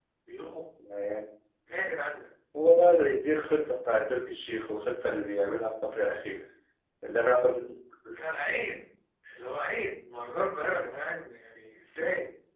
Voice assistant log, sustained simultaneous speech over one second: none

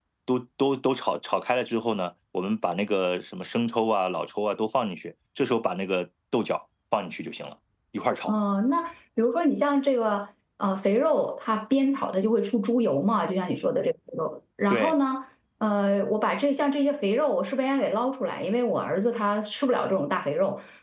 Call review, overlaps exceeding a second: none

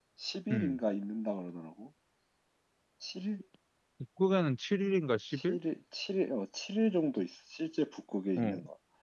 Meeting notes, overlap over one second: none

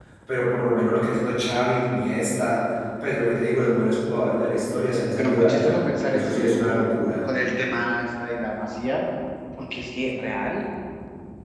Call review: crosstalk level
present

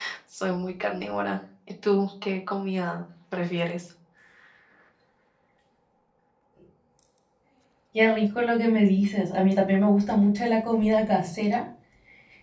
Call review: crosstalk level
none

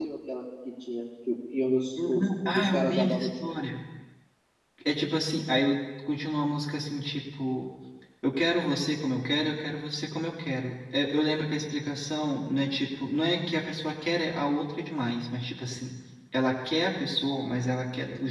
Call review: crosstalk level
present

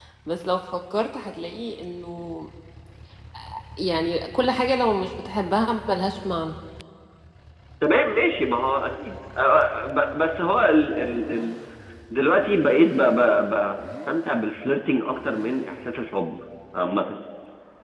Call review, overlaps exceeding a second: none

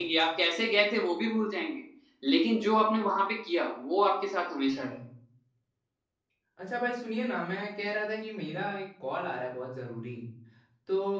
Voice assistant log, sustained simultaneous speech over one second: none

